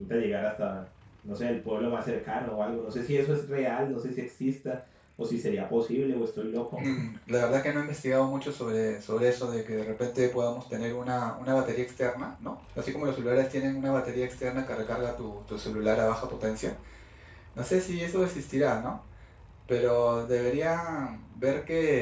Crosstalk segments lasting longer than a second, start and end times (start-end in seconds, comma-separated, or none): none